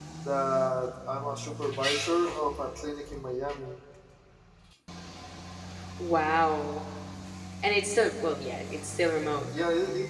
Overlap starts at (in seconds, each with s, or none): none